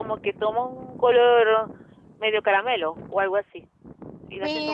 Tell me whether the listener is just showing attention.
No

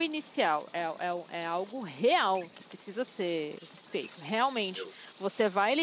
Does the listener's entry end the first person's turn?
No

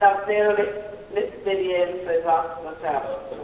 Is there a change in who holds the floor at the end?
Yes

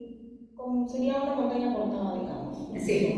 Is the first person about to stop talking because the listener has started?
No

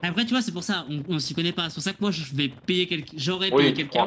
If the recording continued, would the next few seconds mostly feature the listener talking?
Yes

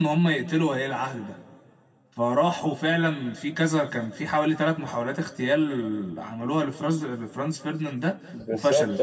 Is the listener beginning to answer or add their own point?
Yes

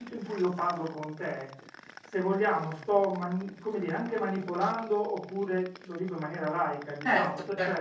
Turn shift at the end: No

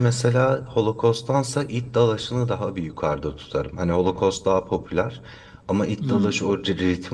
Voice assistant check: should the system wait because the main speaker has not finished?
Yes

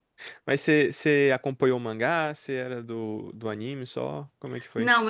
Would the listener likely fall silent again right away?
No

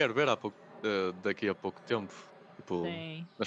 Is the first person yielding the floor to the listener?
No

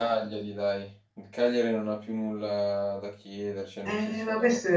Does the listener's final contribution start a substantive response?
Yes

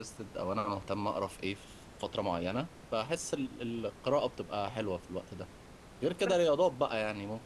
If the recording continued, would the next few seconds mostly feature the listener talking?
No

